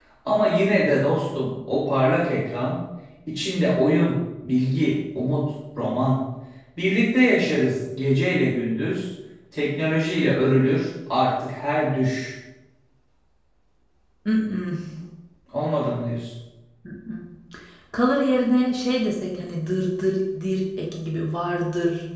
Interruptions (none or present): none